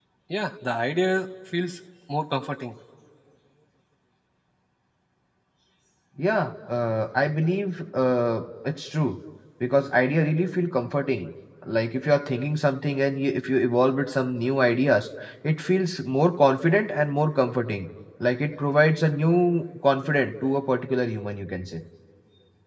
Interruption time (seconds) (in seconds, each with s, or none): none